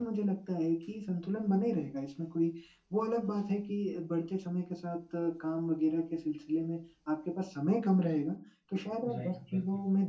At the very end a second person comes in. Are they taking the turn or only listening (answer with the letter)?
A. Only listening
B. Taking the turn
A